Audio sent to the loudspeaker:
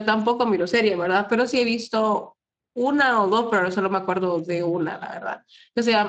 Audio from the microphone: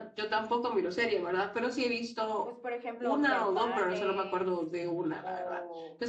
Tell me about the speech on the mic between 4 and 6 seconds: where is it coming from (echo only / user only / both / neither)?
both